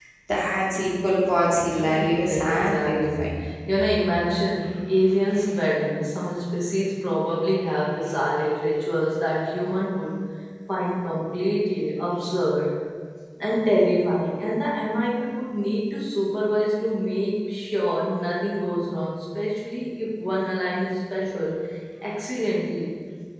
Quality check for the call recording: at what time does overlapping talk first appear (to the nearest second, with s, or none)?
2 s